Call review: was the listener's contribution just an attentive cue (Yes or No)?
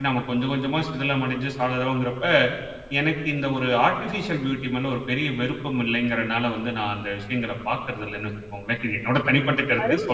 No